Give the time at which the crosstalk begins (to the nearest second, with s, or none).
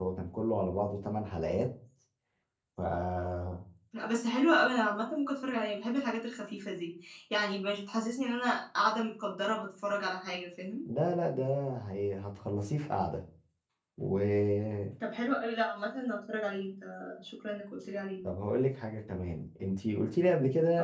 none